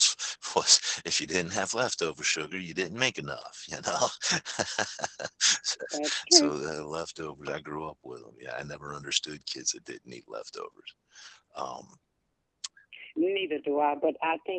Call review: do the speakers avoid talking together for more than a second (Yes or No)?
Yes